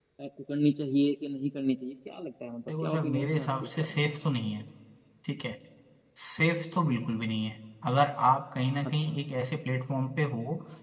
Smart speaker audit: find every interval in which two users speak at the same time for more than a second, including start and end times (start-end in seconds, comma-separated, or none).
2.7-4.0